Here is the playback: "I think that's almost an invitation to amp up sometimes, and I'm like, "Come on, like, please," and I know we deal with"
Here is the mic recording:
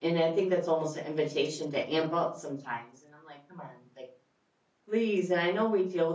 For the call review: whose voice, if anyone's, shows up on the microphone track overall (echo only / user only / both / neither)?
echo only